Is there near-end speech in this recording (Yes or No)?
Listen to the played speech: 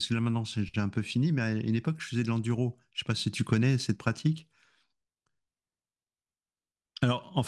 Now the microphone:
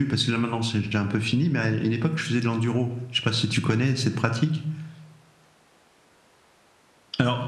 No